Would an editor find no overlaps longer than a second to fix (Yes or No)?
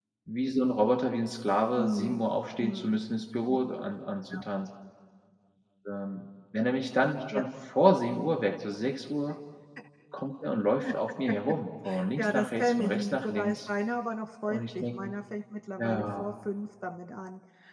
No